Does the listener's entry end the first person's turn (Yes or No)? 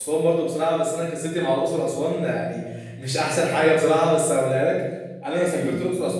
No